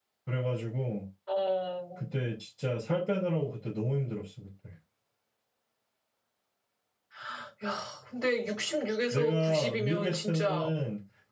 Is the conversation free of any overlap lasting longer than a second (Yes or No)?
No